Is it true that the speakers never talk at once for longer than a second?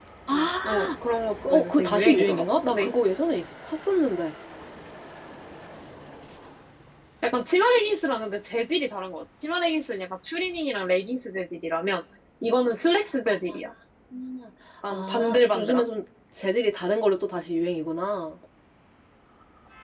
No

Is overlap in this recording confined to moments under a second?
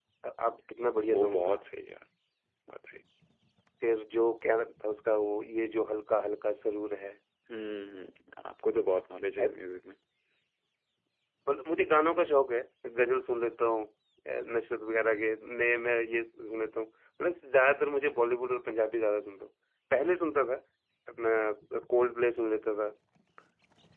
Yes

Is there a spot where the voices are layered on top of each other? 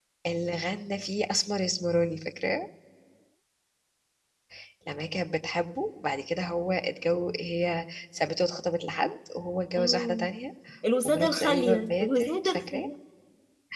Yes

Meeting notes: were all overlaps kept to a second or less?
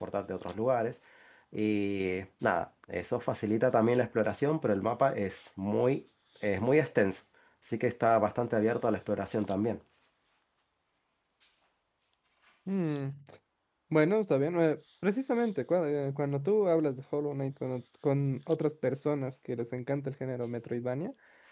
Yes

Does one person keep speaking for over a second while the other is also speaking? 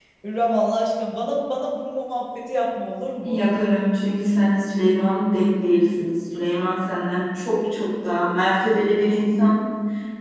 No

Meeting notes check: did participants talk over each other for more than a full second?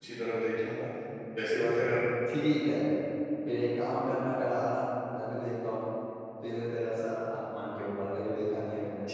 No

